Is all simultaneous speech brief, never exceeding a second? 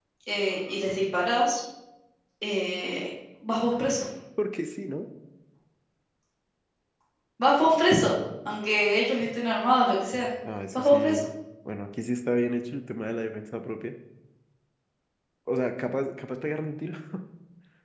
Yes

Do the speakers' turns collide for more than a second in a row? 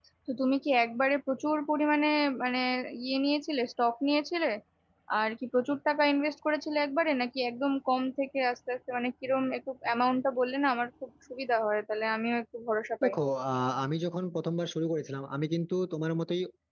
No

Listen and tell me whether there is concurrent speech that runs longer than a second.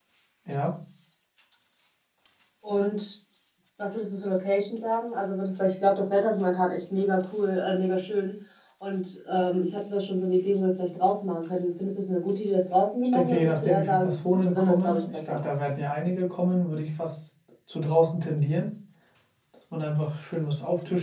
Yes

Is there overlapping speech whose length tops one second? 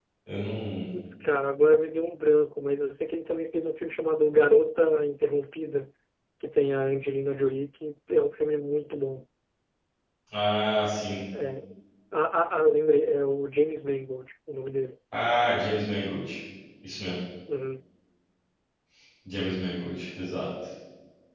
No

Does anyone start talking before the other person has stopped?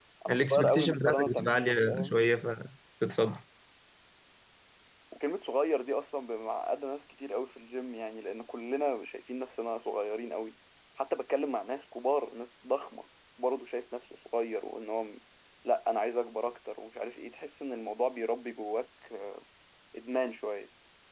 Yes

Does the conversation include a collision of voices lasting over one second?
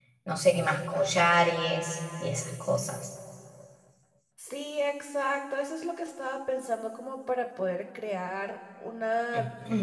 No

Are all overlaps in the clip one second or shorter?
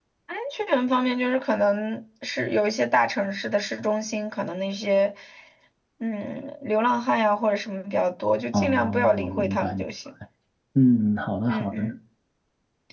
No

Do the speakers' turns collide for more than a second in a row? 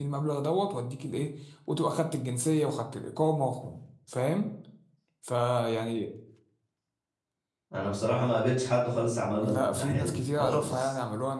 Yes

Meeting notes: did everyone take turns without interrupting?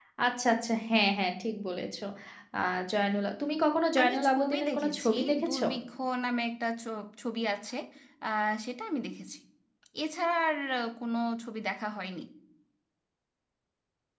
No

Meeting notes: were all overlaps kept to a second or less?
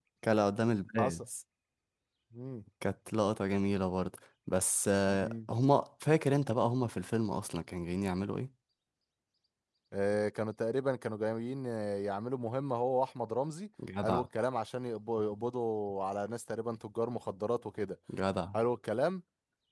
Yes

